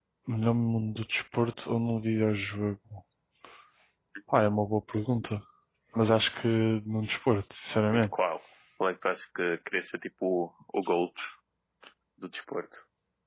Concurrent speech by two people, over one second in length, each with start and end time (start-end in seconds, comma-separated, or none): none